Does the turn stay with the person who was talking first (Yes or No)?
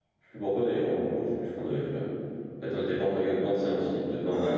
No